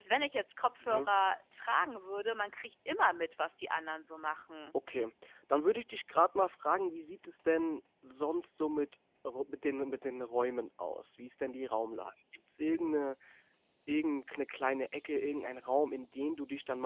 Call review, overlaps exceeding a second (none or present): none